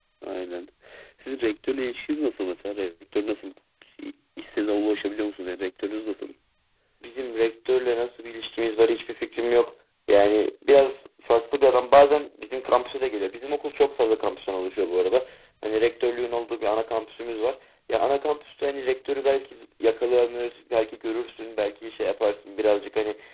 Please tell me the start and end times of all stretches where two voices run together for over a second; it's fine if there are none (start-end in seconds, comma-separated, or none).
none